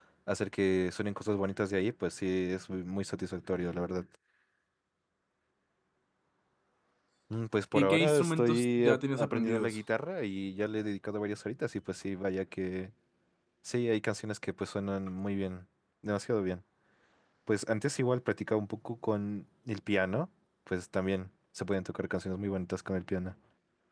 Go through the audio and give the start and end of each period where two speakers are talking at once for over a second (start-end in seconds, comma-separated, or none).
7.7-9.8